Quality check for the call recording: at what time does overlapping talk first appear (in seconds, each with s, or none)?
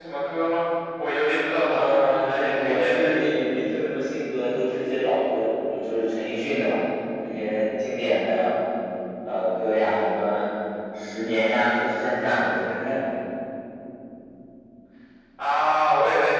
1.7 s